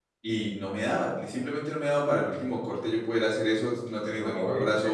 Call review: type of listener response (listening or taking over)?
taking over